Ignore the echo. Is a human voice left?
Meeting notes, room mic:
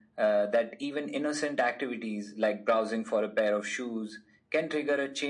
No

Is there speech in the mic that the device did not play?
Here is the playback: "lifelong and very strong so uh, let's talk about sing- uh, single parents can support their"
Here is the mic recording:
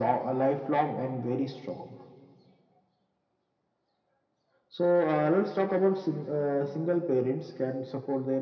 No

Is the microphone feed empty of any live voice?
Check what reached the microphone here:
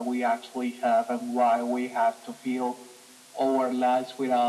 Yes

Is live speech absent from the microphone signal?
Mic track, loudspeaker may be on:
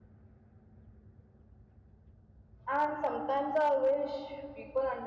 No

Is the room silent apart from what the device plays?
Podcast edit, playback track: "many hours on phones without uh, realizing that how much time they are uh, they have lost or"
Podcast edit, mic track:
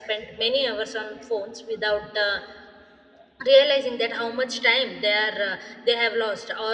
Yes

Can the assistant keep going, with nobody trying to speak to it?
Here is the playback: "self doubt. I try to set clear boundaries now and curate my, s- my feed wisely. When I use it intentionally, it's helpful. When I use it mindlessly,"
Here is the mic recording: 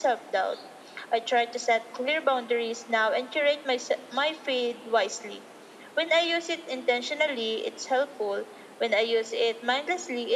Yes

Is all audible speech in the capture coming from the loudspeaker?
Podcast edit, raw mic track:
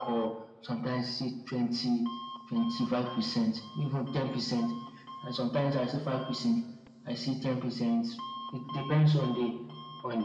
Yes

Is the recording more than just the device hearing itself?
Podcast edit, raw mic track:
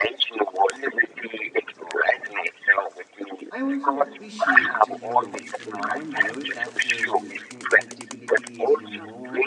Yes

